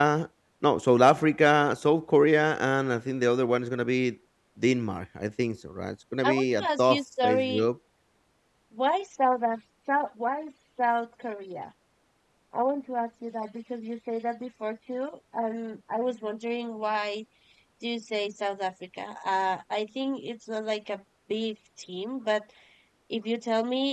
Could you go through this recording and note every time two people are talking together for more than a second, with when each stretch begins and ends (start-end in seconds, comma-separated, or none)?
6.2-7.7